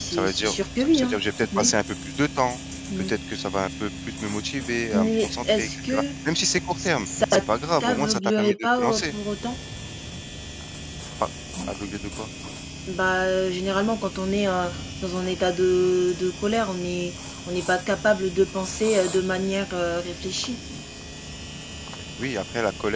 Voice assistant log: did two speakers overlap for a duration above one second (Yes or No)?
Yes